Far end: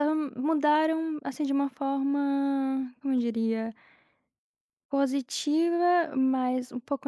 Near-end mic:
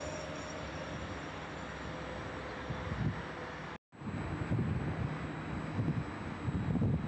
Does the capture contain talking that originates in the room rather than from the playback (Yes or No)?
No